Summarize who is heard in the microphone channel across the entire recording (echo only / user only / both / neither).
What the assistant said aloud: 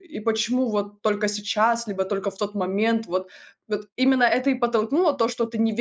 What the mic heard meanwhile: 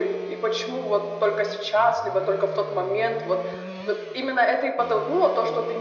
echo only